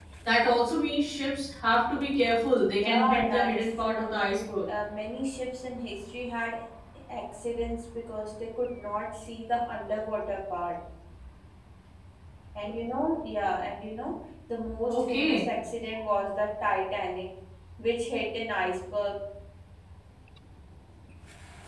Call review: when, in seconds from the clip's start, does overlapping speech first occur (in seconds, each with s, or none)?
2.7 s